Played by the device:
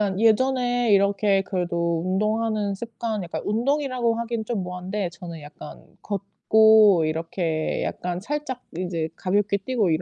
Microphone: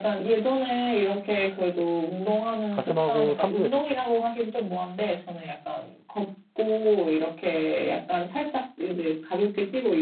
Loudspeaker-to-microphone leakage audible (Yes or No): Yes